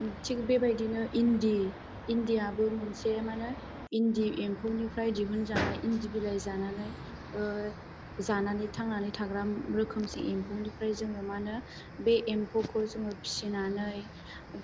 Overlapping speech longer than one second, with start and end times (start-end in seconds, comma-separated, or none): none